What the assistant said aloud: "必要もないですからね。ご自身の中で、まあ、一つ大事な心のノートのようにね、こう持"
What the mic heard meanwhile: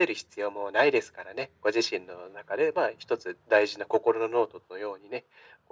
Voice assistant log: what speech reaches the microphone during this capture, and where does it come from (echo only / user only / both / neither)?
echo only